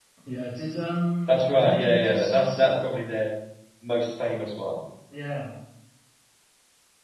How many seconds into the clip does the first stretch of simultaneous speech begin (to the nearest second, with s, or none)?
1 s